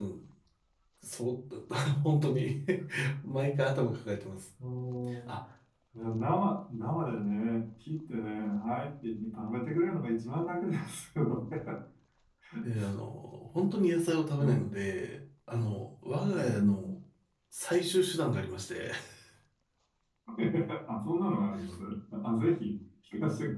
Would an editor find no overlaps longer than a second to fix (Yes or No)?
Yes